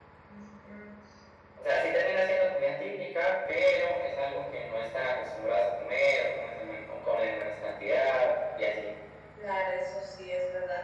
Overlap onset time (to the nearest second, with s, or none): none